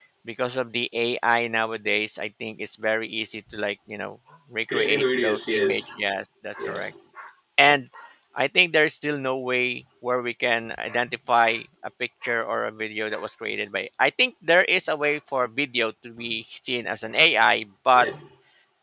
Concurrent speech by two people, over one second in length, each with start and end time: 4.7-5.9

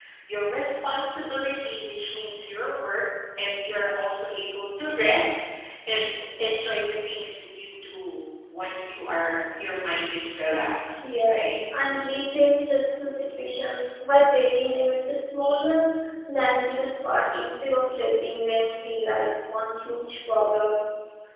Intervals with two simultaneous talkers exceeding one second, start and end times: none

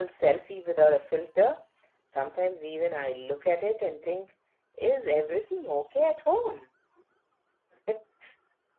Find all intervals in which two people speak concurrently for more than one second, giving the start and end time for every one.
none

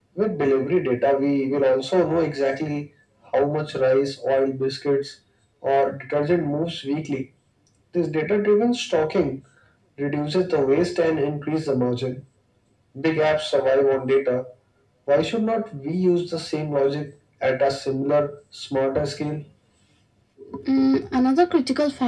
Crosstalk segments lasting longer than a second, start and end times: none

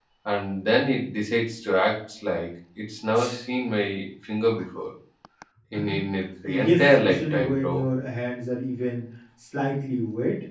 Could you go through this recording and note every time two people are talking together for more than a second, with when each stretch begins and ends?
6.4-7.8

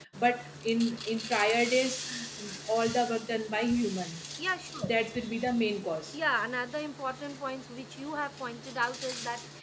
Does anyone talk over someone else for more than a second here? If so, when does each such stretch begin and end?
none

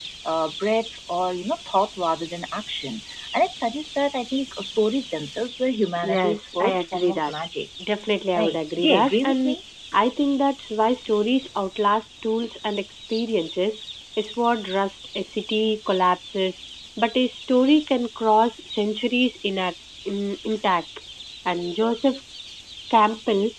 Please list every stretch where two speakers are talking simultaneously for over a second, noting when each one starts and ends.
6.0-7.3, 8.3-9.6

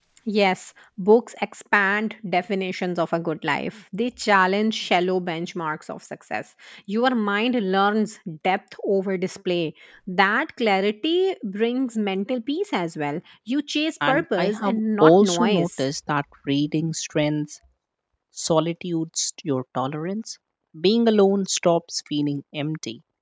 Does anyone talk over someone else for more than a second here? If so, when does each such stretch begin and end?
14.1-15.8

